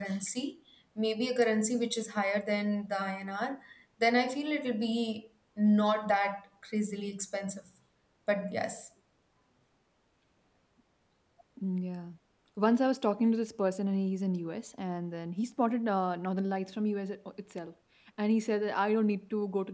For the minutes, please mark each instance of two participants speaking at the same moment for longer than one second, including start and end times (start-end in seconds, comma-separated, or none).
none